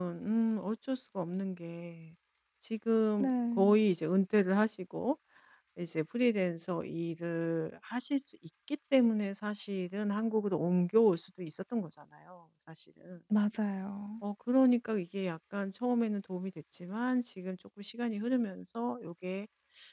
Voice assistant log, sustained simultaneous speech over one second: none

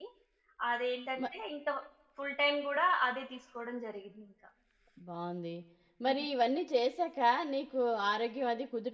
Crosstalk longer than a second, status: none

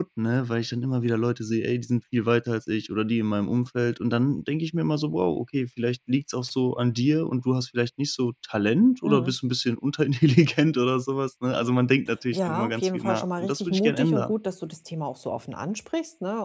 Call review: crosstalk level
present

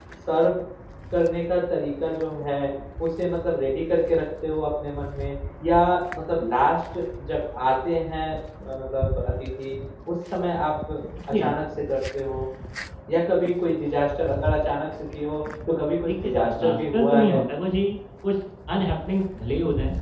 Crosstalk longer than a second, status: present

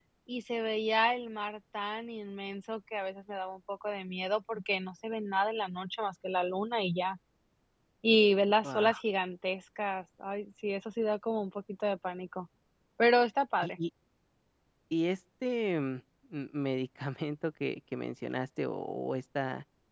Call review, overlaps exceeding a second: none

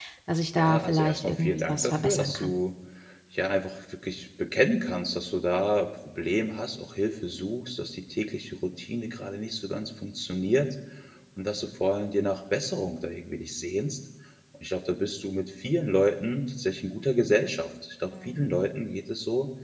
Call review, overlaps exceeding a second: present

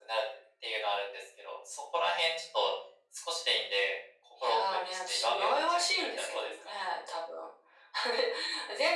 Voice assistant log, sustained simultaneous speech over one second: present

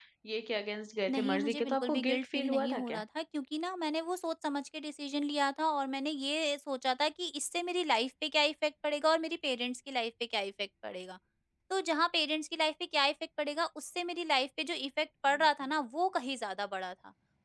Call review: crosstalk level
present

